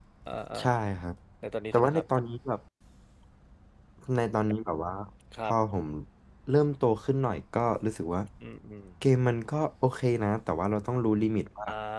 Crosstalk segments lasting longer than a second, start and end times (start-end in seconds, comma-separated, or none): none